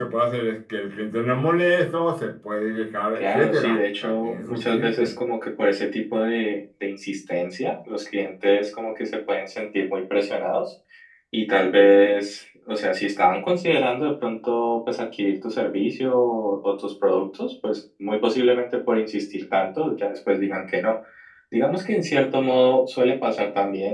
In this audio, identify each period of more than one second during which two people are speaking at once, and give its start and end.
3.2-5.1

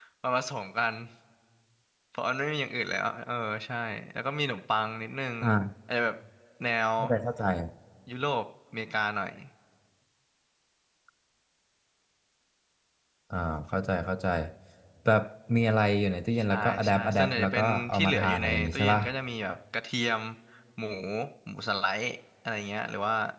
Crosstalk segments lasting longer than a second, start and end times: 16.5-19.0

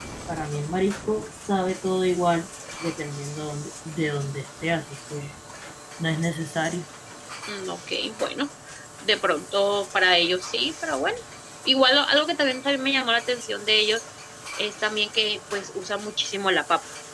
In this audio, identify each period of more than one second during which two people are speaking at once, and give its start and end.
none

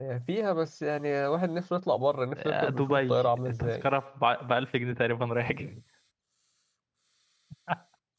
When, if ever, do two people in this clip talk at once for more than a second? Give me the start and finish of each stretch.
2.4-3.9

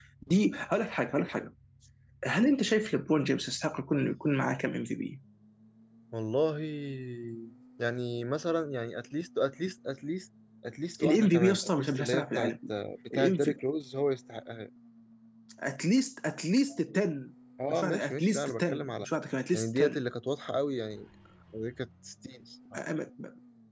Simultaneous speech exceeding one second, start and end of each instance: 11.0-12.5, 17.7-19.1

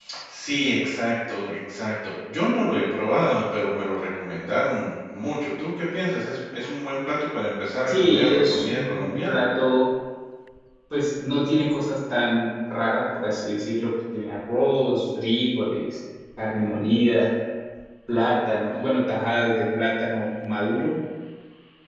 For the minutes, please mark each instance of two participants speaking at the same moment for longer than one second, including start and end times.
7.9-9.4

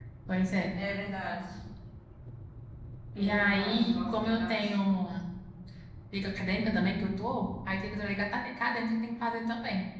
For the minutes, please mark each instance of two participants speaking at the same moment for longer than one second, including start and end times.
3.1-4.6

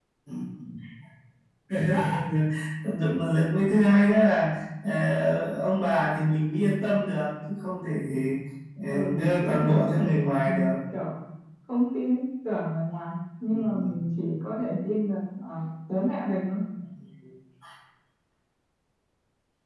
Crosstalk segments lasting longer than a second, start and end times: 8.9-10.7

